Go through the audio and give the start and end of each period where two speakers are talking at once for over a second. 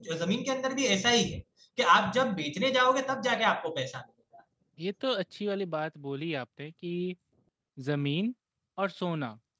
none

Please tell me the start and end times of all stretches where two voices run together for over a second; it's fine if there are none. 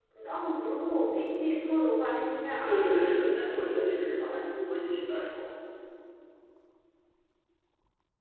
2.6-4.4

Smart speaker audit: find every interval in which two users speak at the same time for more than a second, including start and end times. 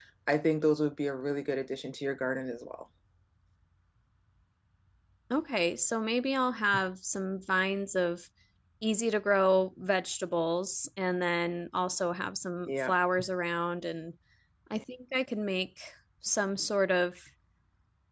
none

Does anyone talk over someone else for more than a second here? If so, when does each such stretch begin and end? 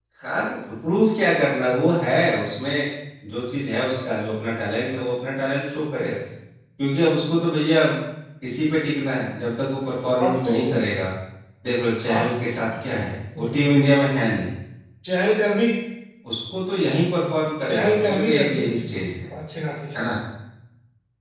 17.7-19.1

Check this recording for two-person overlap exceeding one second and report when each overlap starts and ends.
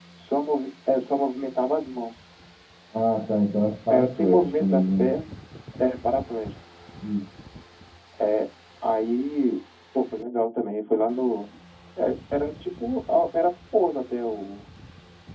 3.9-5.1

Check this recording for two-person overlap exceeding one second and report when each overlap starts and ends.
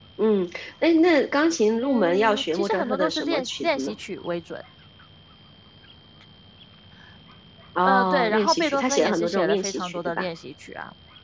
1.8-3.9, 7.8-10.3

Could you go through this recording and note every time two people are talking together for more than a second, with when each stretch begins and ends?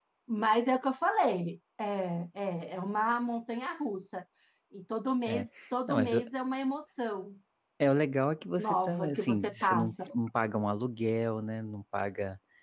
8.6-9.9

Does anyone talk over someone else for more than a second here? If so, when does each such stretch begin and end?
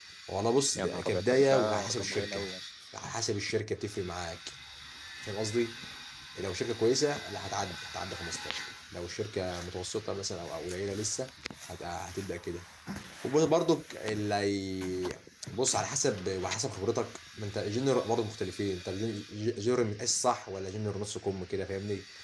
0.8-2.5

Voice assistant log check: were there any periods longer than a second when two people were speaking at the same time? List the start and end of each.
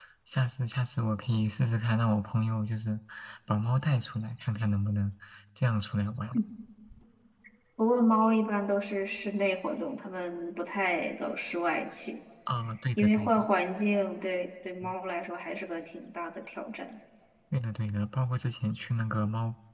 none

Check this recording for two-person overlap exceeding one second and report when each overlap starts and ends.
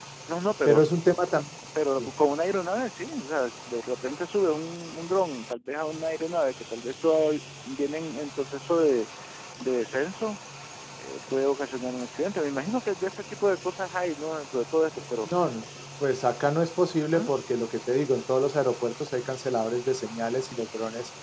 none

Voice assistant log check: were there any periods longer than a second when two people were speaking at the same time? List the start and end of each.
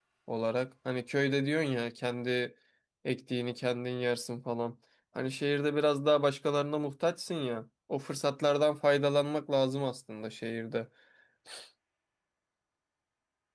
none

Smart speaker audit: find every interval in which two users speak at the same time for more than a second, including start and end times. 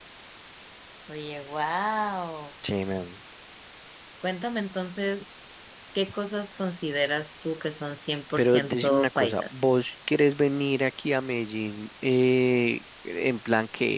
8.4-9.7

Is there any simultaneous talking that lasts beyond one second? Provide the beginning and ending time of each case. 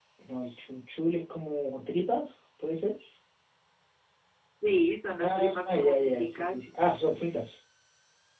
5.2-6.7

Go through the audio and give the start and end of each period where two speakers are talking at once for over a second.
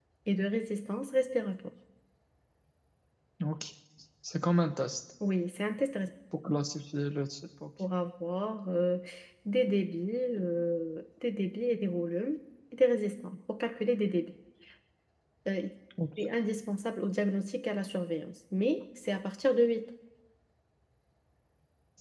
none

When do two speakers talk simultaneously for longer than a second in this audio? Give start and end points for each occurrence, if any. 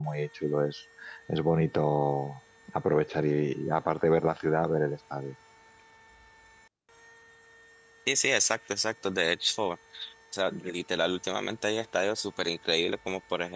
none

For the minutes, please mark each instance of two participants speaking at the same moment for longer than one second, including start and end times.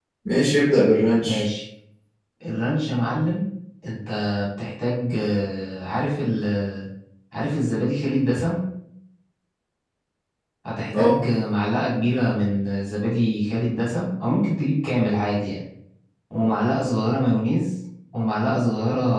none

